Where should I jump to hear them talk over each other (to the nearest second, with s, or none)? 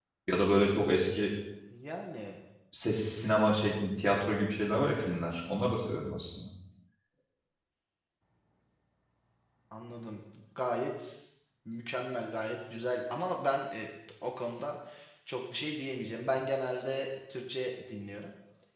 none